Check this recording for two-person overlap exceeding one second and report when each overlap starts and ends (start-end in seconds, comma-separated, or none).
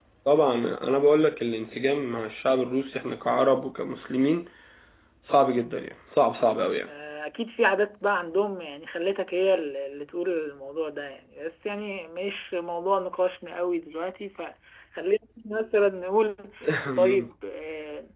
none